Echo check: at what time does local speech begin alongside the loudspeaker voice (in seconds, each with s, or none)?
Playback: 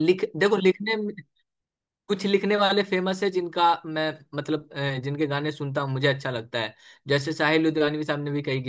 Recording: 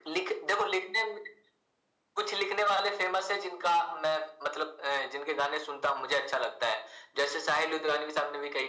none